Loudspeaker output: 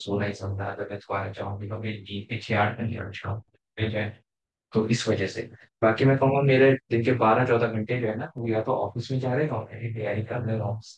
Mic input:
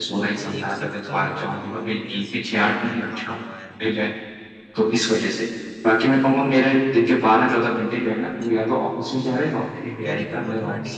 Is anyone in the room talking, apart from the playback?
Yes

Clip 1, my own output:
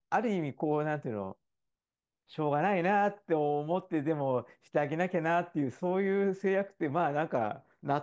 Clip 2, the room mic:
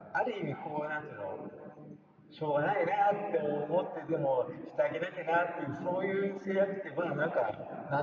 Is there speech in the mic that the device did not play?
No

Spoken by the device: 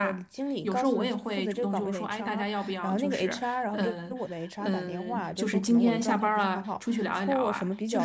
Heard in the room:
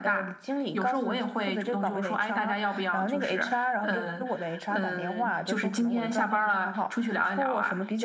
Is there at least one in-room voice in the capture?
No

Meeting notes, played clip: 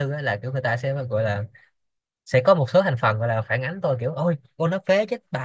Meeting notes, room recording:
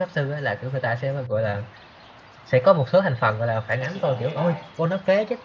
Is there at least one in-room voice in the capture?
Yes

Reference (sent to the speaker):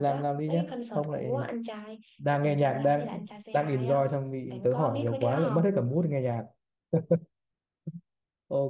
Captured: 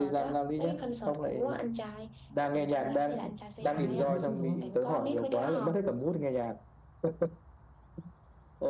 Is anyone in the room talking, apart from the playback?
Yes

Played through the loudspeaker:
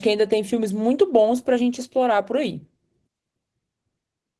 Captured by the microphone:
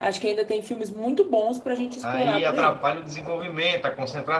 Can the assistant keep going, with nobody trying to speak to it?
No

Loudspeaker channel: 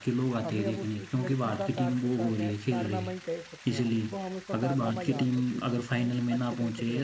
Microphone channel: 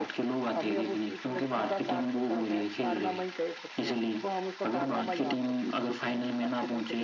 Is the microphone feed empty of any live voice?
Yes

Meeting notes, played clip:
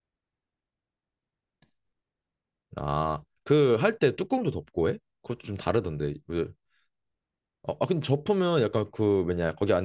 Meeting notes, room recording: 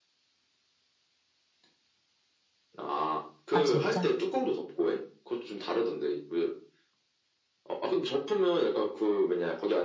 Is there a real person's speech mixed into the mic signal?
Yes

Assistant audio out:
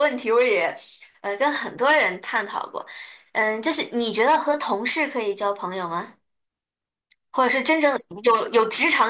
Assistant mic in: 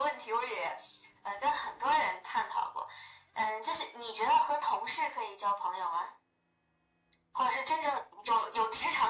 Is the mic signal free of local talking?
Yes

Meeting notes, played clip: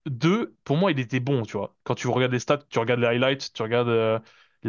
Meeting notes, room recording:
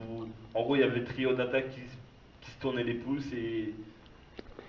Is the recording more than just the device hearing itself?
Yes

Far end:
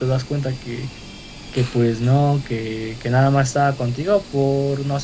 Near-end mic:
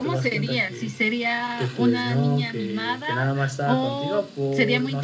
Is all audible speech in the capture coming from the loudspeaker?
No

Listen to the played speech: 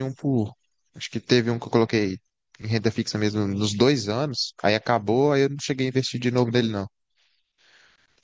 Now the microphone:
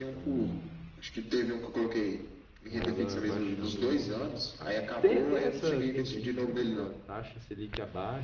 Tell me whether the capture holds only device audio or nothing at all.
No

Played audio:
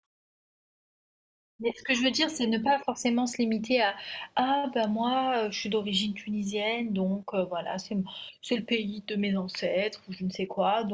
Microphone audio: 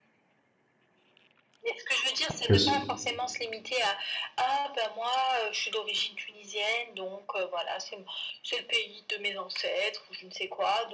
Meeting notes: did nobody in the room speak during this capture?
No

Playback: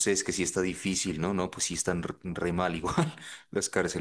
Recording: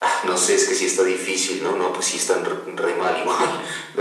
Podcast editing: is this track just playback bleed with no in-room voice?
Yes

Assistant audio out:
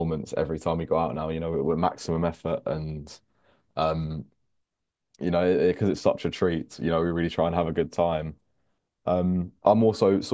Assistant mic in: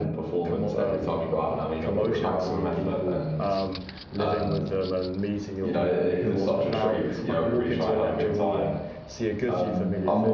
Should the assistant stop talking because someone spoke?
Yes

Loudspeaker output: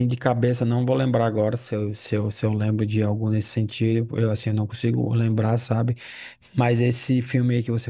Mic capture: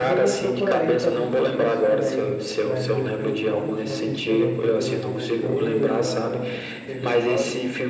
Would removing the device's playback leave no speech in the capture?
No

